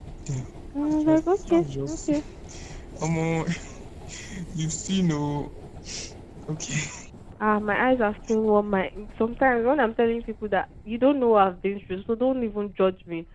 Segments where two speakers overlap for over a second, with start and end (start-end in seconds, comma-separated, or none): 0.8-2.1